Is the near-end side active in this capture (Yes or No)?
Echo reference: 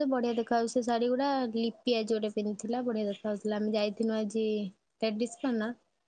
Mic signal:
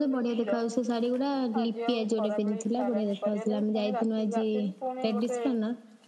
Yes